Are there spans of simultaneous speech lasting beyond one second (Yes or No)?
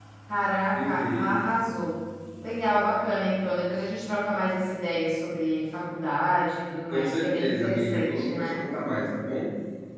Yes